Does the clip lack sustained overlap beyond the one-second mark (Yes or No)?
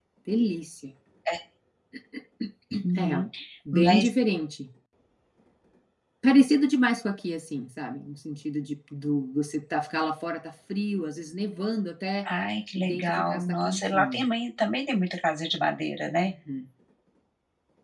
No